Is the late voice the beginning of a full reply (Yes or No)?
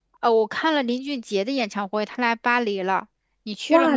Yes